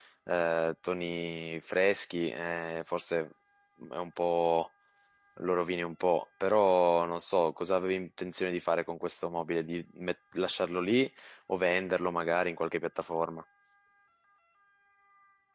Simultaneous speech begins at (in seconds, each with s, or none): none